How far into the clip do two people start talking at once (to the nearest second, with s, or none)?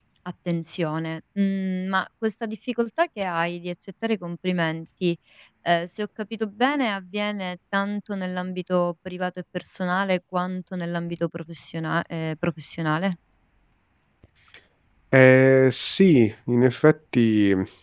none